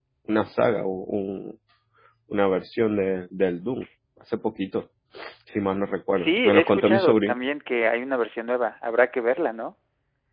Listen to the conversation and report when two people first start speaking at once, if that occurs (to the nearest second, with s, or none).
6 s